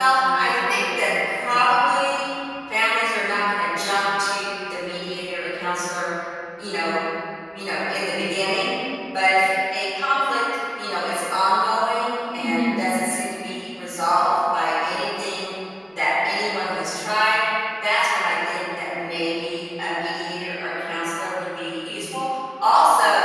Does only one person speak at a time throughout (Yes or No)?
No